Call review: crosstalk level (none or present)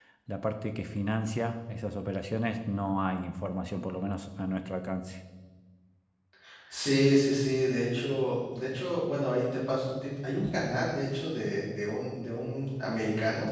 none